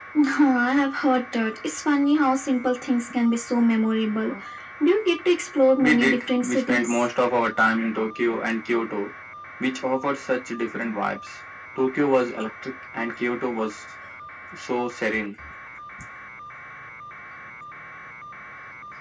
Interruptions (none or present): present